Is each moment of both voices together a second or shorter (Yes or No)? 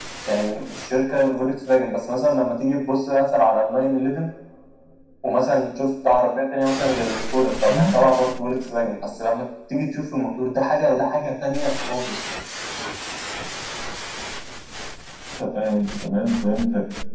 Yes